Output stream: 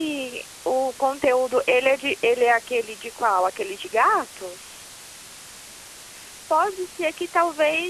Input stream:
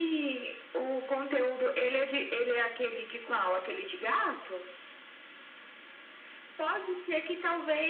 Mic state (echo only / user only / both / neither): echo only